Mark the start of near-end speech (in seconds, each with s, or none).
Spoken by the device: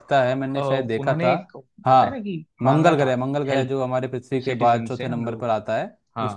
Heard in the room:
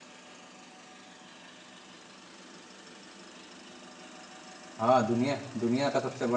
4.8 s